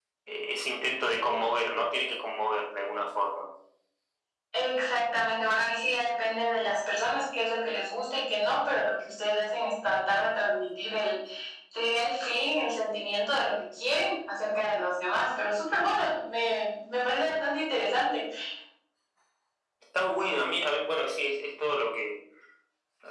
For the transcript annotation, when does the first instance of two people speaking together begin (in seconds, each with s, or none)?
none